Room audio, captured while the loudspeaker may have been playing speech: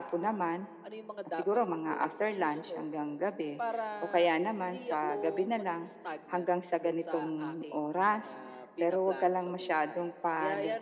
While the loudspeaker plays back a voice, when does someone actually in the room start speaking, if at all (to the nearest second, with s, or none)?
none